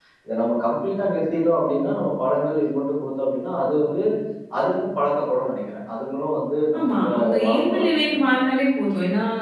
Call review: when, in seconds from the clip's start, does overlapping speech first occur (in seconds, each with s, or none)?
6.7 s